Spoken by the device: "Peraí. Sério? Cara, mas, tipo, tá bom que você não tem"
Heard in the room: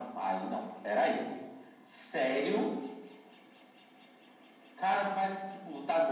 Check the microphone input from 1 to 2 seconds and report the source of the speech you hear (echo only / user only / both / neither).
echo only